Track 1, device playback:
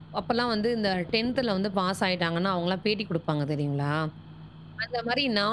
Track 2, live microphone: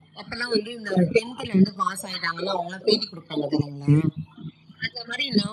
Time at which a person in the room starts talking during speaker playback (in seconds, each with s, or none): none